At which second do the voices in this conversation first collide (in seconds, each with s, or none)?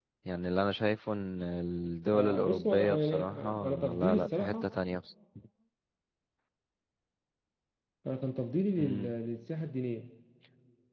2.1 s